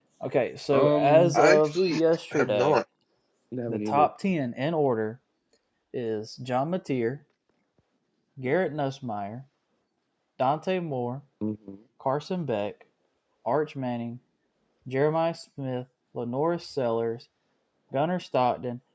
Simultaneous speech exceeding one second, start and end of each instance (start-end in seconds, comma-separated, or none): 0.7-1.9